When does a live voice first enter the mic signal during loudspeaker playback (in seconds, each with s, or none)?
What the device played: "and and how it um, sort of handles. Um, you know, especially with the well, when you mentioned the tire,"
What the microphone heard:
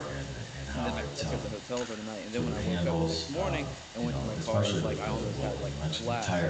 0.7 s